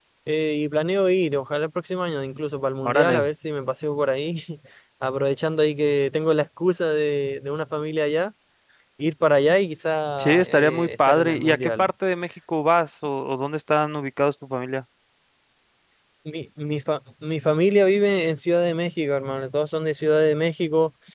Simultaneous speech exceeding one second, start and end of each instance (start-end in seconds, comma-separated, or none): 10.2-11.9